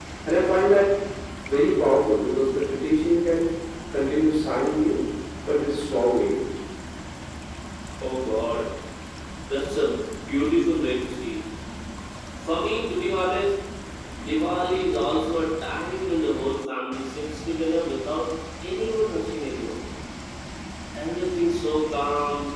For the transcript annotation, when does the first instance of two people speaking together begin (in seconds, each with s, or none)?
none